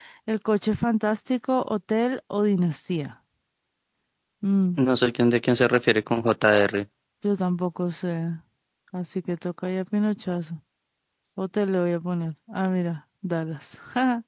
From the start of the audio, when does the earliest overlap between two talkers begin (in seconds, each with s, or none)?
none